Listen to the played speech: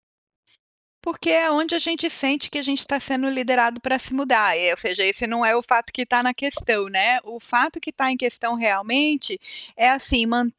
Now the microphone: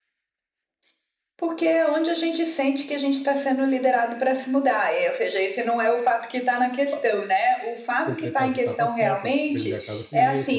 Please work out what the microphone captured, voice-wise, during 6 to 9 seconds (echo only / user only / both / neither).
both